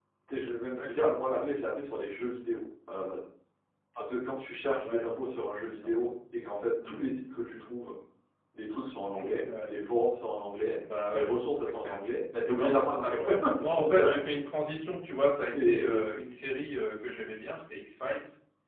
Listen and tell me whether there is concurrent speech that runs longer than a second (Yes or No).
Yes